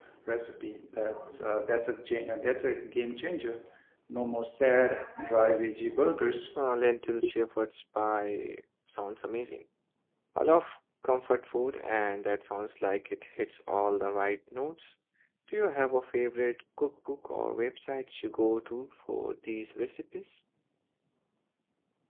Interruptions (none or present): none